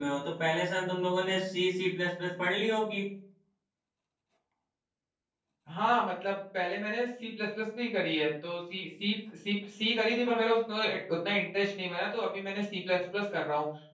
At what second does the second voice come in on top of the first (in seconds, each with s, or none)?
none